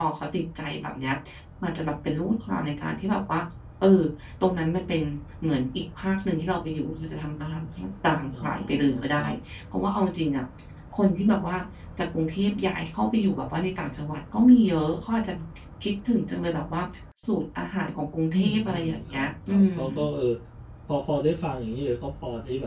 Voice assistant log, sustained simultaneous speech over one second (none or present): present